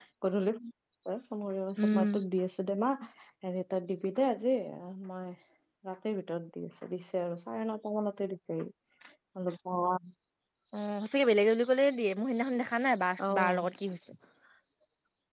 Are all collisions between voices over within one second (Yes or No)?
Yes